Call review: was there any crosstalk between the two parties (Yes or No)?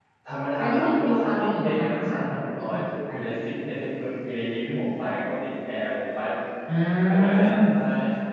Yes